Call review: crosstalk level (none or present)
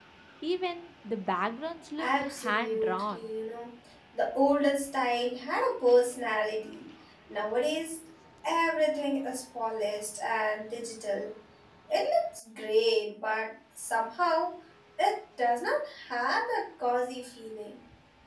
present